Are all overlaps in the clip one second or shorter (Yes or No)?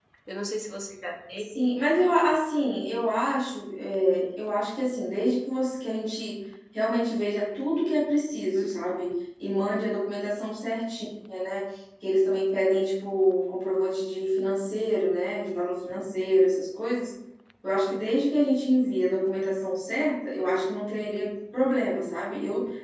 Yes